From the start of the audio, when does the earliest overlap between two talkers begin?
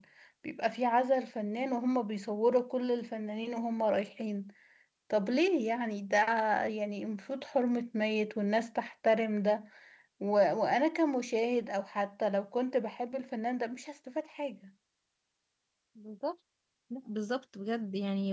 none

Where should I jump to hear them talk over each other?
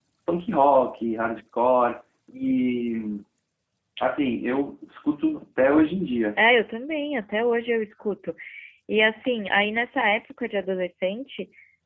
none

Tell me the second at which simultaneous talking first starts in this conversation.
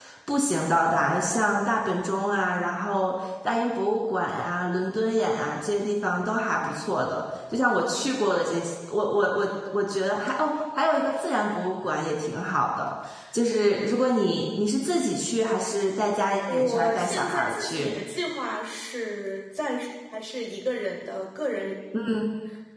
16 s

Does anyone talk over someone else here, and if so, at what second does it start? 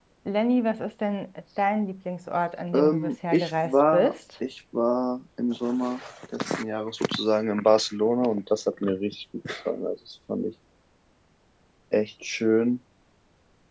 3 s

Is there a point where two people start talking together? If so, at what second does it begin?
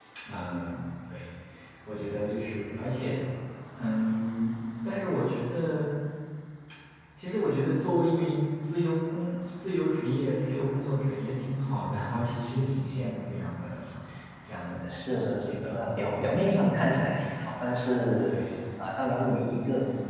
15 s

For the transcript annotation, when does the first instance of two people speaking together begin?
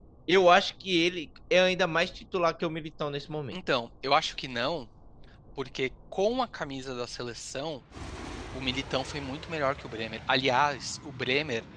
none

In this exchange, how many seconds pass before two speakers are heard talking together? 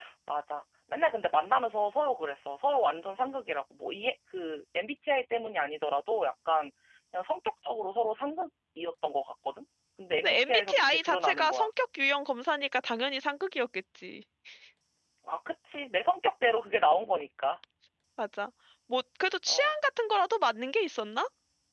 10 s

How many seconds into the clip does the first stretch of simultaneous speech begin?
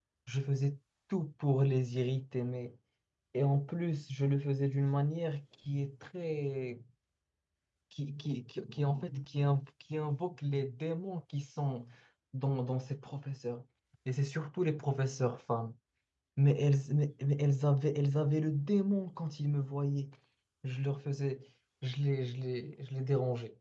none

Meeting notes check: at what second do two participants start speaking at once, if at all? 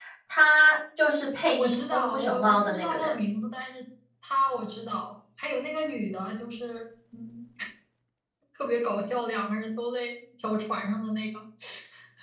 2 s

